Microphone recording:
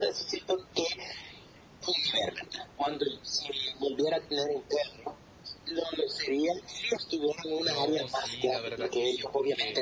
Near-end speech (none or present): present